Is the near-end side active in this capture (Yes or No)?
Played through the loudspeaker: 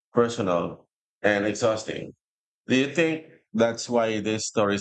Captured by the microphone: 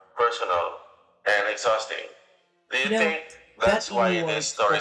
Yes